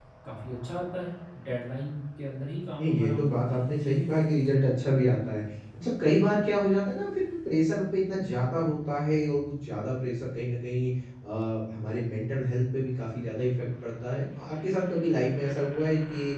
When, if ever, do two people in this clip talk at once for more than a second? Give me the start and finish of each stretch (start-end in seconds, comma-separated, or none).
2.8-4.0